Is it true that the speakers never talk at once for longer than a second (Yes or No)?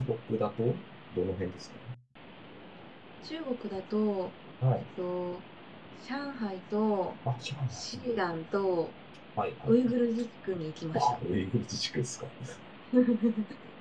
Yes